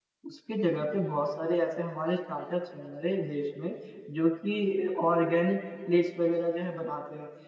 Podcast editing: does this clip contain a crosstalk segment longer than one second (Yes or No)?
No